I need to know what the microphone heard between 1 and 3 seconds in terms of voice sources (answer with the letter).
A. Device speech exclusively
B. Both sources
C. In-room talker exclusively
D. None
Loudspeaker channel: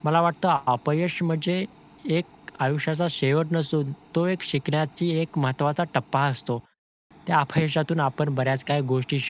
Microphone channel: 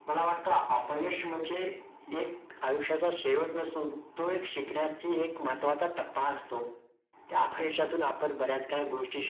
A